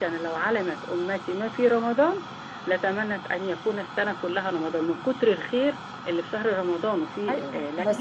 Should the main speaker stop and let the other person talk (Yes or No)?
Yes